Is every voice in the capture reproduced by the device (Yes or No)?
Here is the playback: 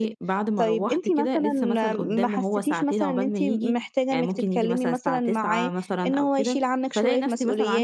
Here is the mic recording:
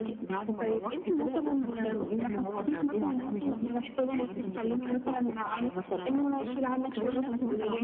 Yes